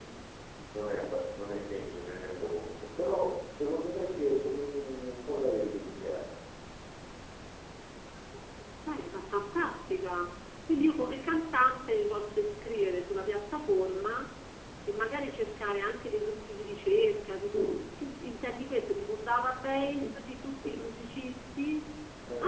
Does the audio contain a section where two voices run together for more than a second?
No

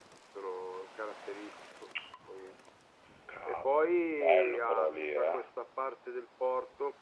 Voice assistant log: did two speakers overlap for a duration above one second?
Yes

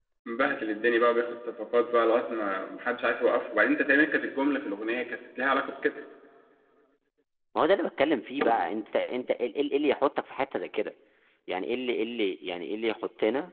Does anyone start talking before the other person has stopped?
No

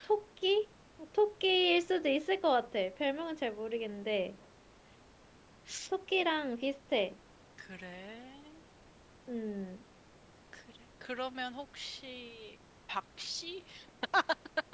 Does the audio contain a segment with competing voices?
No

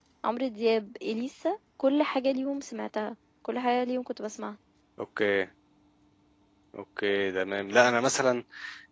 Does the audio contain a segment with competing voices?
No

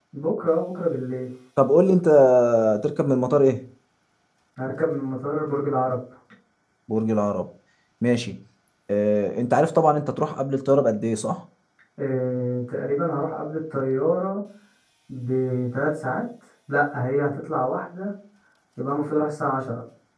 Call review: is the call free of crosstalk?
Yes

